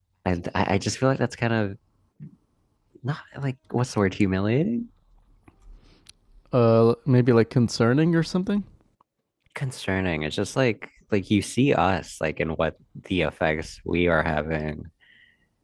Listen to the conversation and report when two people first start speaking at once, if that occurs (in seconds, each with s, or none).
none